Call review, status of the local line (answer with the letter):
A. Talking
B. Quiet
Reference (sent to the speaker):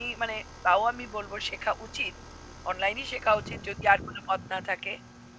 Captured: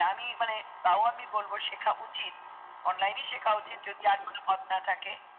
B